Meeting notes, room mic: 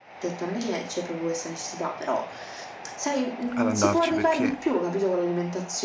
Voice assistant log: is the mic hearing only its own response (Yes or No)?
No